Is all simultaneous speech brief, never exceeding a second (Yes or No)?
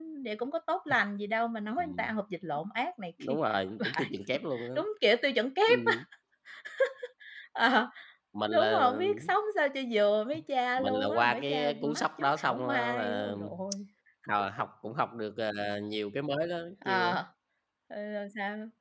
No